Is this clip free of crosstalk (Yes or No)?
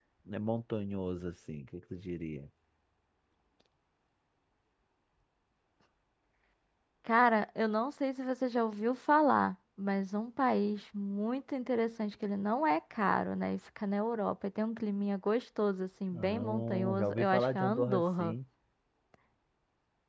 No